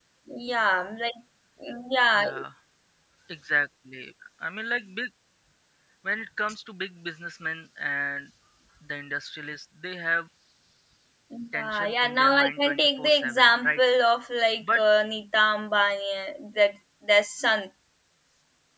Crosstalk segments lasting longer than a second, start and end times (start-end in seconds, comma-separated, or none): 11.6-13.8